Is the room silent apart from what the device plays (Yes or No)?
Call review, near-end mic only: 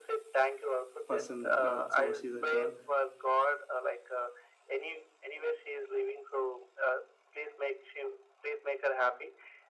No